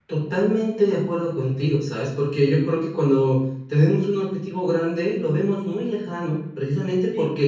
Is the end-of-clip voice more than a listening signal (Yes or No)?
No